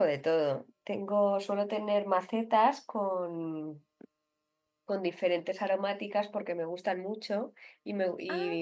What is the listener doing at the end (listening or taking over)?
listening